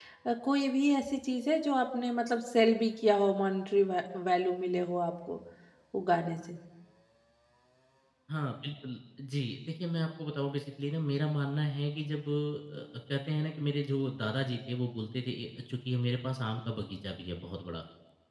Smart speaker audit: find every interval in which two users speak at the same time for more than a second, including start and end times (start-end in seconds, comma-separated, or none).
none